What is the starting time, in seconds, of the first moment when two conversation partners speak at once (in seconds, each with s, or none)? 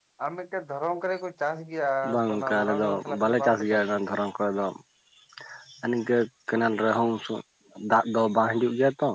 2.0 s